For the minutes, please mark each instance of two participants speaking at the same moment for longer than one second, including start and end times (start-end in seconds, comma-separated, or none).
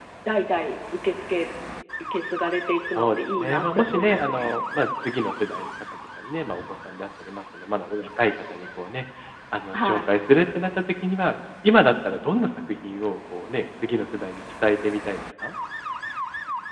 3.0-4.5